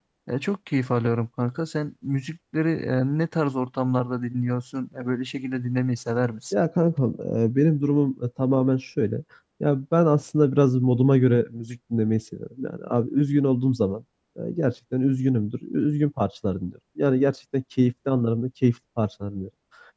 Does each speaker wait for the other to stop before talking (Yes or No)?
Yes